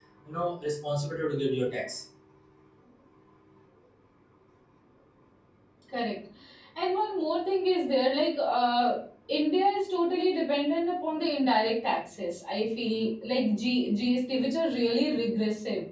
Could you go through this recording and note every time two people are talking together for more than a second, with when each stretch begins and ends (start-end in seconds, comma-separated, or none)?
none